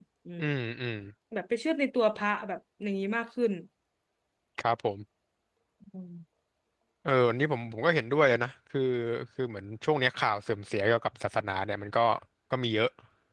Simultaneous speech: No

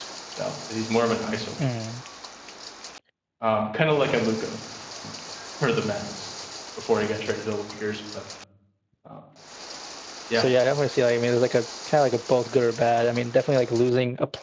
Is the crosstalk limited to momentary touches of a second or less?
Yes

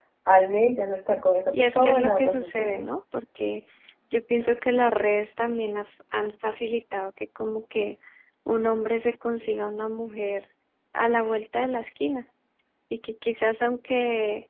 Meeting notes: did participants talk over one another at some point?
Yes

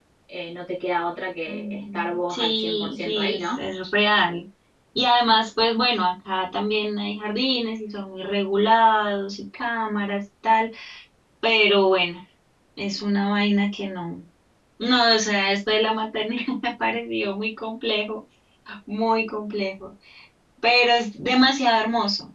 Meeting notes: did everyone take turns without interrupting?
No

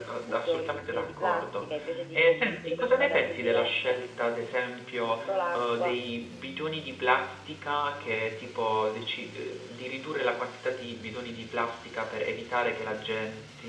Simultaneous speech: Yes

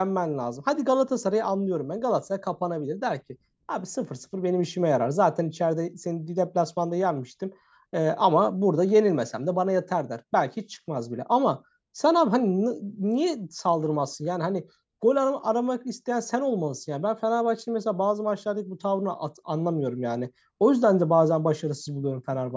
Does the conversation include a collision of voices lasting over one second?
No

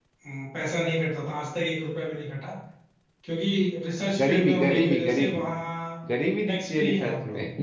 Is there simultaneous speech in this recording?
Yes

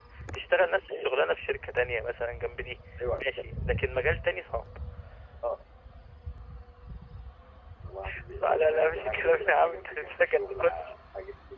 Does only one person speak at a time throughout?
No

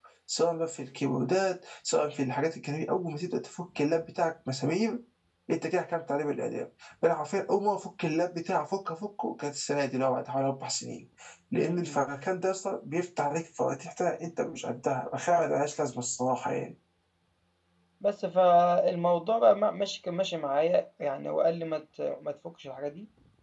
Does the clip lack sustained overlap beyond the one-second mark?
Yes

